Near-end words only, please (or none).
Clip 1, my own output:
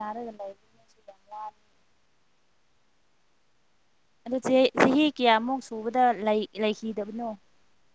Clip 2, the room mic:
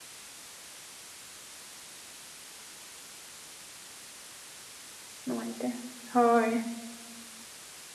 ꯅꯨꯡꯉꯥꯏꯇꯦ ꯍꯣꯏ